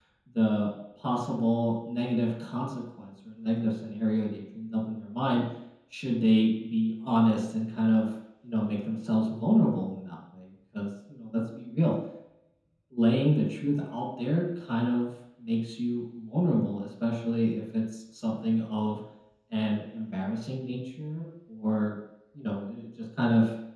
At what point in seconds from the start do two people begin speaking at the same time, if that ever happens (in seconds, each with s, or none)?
none